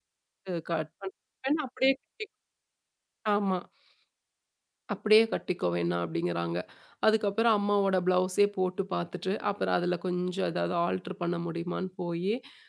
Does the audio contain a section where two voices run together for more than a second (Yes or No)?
No